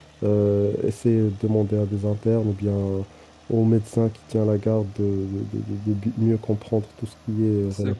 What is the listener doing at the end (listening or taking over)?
taking over